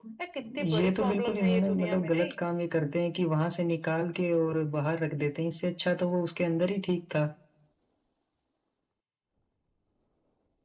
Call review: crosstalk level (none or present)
present